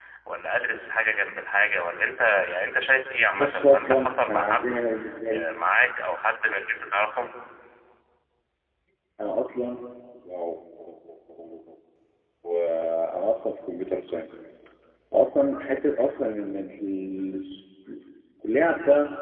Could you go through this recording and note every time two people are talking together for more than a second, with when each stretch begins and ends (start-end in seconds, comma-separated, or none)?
3.4-4.8